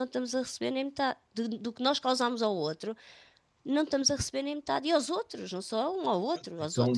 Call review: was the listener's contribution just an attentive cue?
No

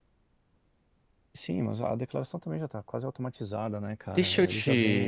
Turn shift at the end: Yes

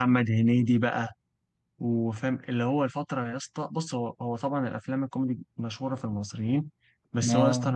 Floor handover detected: No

